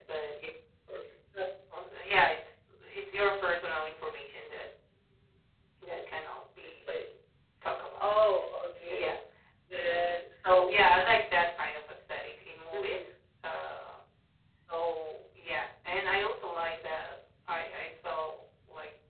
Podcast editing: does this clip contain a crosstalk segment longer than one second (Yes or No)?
No